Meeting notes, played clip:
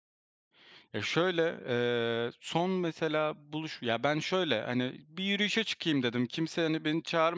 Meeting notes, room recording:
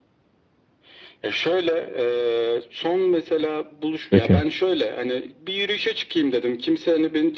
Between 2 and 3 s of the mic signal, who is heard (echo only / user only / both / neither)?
echo only